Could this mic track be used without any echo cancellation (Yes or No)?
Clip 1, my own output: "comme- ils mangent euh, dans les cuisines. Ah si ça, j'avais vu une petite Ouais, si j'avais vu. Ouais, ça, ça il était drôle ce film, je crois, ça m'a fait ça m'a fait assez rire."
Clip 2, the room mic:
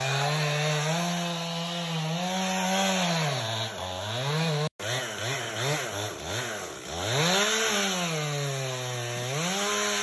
Yes